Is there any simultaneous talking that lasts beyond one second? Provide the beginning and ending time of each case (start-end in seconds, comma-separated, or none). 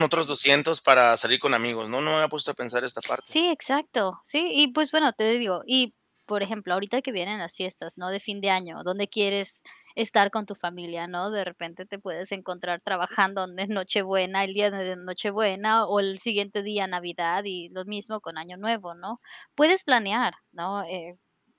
none